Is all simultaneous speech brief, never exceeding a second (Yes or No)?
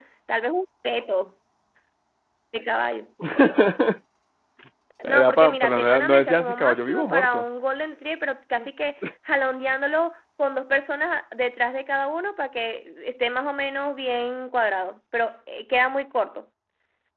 No